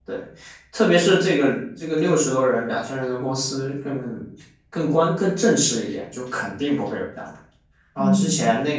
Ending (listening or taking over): listening